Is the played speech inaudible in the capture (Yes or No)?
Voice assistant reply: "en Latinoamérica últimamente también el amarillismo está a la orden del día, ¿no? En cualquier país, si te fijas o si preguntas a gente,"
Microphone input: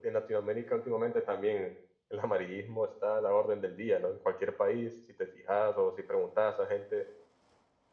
No